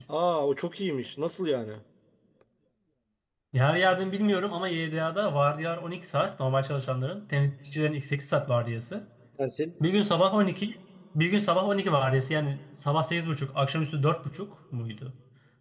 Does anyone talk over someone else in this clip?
No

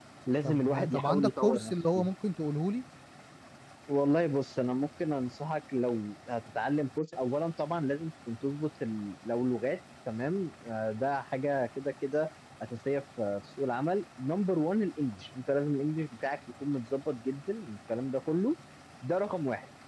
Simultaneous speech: Yes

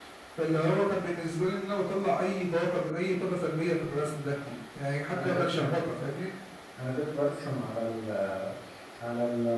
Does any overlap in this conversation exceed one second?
No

